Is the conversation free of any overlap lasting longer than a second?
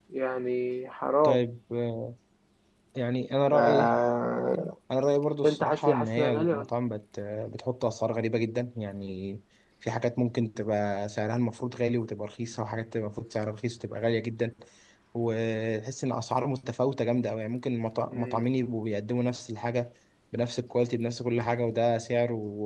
No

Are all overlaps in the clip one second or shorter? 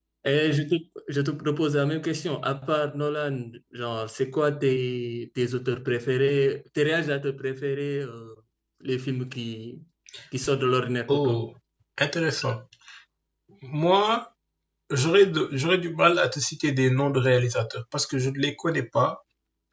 Yes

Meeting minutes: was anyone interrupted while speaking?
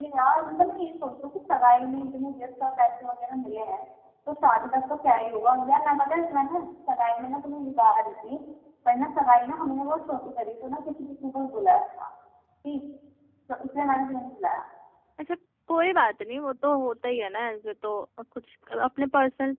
No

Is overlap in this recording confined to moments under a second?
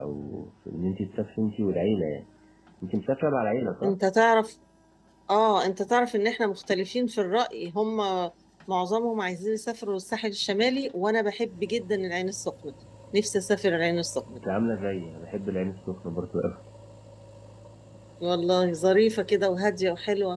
Yes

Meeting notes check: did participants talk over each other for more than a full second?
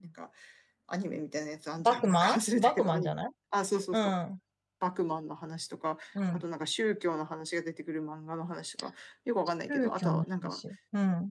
Yes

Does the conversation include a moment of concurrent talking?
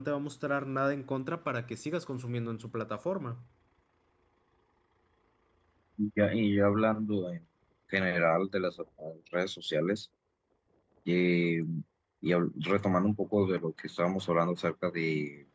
No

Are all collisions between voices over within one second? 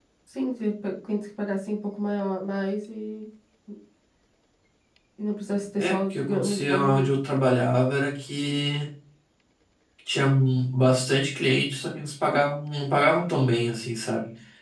No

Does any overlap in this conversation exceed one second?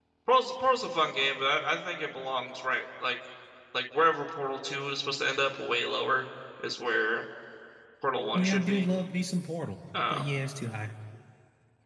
No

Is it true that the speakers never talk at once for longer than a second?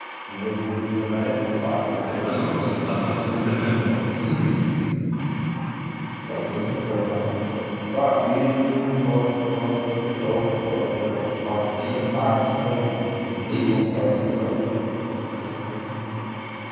No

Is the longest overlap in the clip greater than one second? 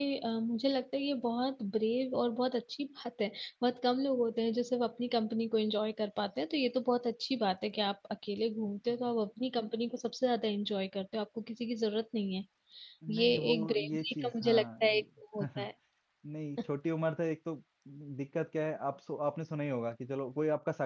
Yes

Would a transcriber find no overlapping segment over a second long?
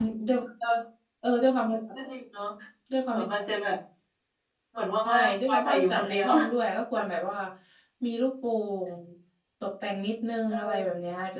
No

